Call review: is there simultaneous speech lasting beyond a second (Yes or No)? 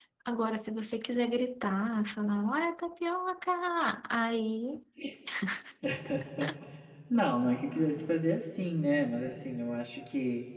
No